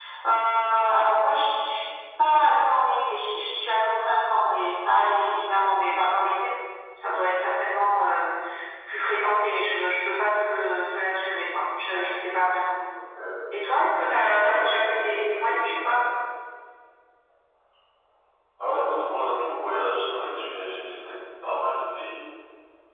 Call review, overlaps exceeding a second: present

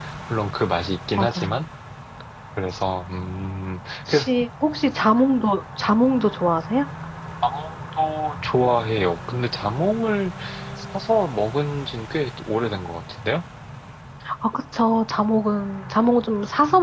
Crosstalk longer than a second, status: none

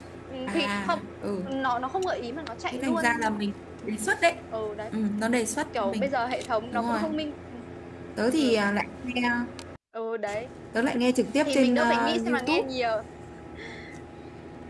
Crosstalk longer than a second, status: present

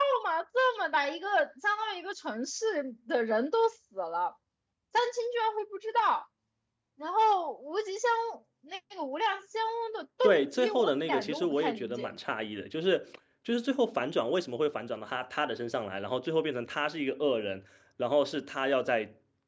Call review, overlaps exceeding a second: present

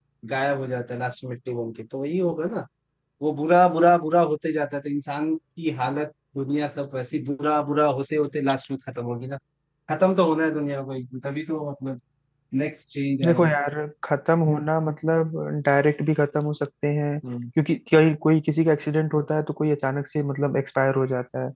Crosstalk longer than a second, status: none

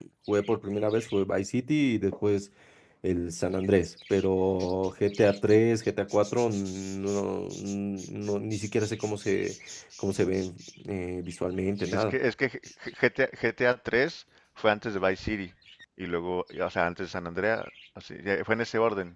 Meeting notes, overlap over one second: none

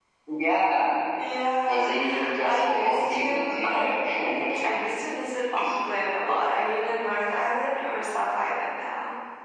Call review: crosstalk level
present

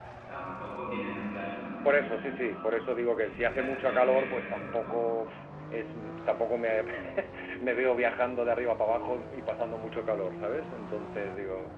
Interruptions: present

